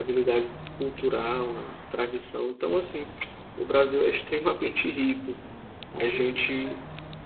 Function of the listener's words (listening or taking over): listening